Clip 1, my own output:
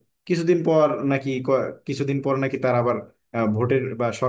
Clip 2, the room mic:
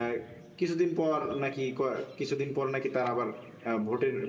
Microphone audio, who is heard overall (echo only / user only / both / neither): echo only